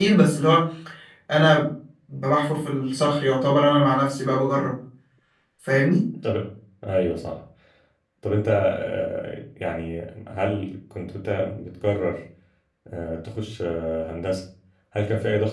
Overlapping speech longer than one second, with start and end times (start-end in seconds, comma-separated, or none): none